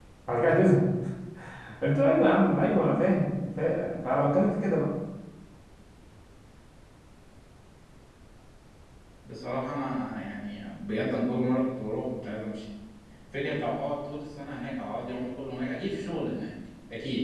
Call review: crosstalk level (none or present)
none